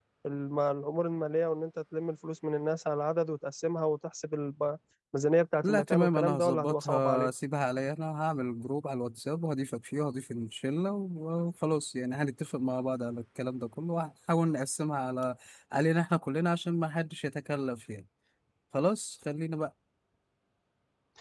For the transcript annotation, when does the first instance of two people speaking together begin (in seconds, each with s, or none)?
5.6 s